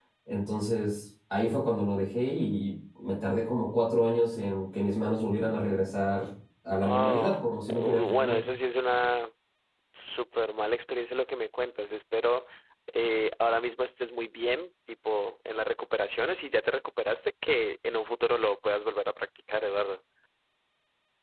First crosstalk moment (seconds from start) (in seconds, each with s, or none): 6.8 s